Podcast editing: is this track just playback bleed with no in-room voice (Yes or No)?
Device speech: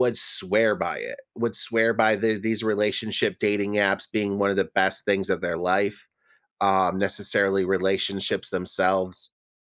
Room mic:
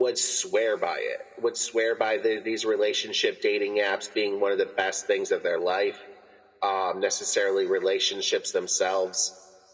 Yes